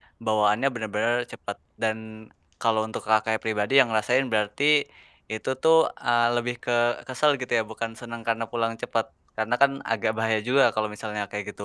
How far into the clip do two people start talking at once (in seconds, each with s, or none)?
none